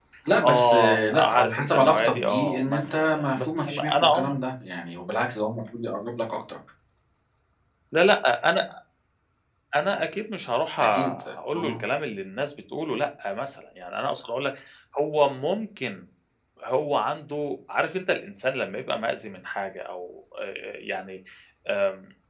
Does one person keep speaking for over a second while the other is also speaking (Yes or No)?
Yes